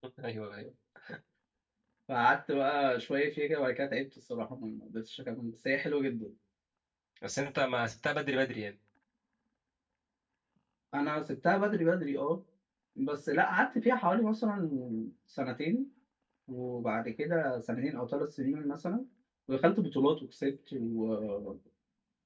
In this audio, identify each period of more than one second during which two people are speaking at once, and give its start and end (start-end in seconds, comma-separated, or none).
none